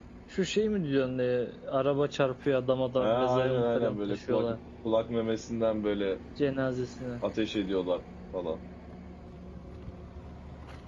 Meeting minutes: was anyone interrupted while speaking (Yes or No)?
Yes